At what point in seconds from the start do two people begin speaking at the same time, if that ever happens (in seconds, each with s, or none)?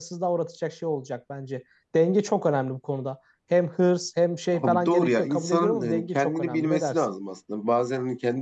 4.5 s